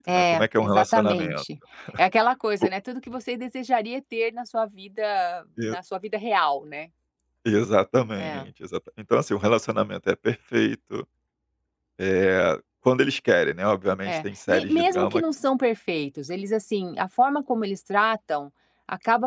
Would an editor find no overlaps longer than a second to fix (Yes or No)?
No